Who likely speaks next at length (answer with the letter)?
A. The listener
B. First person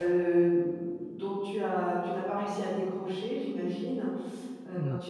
B